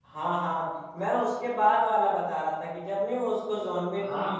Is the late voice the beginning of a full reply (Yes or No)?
Yes